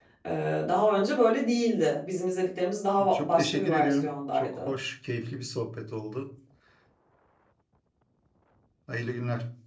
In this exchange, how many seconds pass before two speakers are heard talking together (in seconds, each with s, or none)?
3.0 s